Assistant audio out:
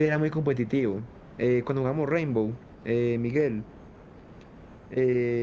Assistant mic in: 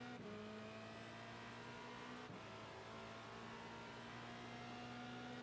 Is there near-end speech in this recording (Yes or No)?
No